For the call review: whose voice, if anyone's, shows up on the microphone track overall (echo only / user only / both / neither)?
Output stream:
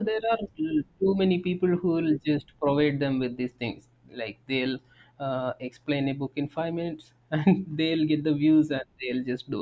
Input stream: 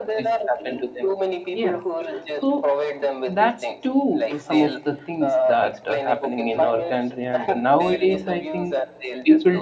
both